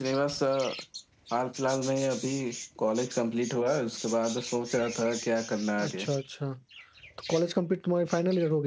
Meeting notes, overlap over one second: none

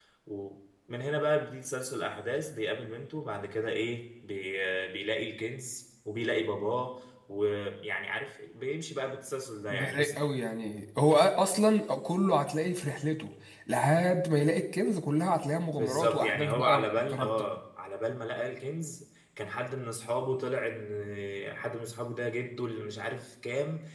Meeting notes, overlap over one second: present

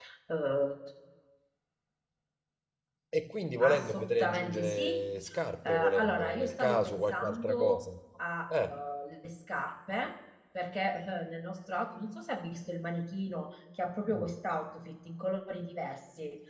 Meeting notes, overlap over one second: present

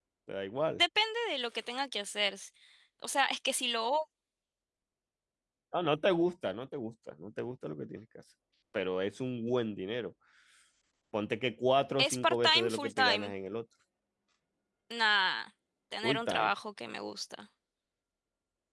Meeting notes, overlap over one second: present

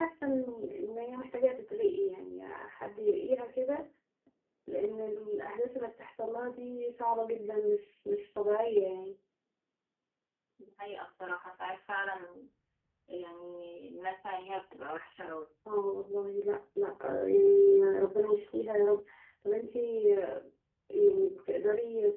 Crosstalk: none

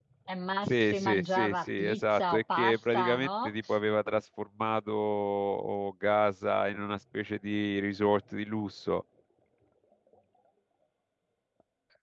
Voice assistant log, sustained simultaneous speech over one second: present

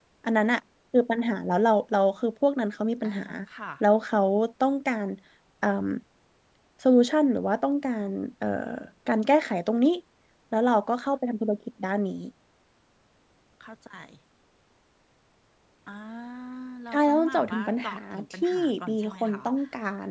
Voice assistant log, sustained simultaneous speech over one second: present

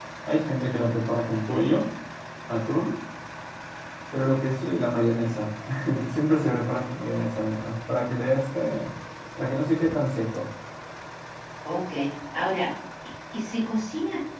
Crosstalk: none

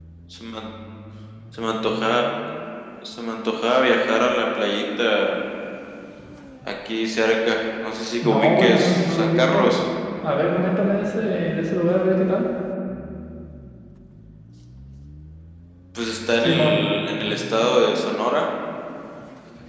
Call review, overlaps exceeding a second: present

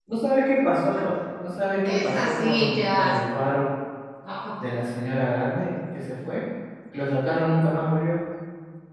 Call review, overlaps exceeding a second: present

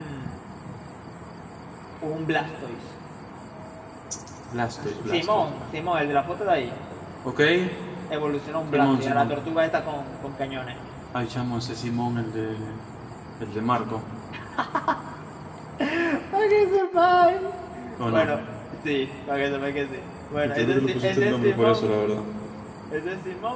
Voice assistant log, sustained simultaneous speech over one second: present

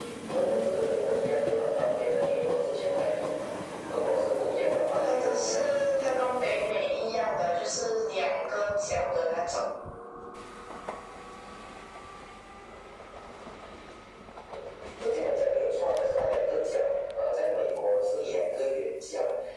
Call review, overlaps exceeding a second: present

